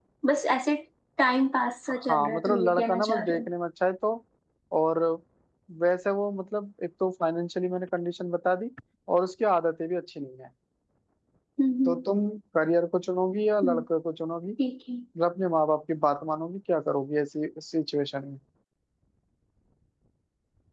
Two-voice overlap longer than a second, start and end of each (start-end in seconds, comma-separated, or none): 2.1-3.5